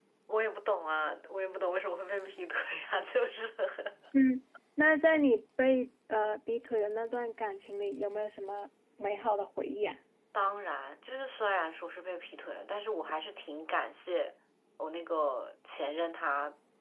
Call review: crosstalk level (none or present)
none